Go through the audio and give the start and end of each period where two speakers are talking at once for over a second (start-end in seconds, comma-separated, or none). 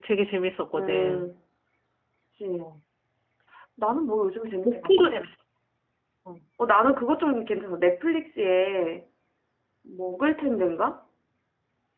none